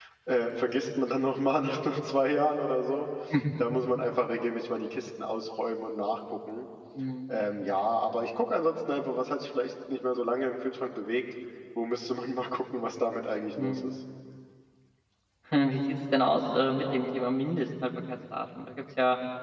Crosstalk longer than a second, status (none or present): none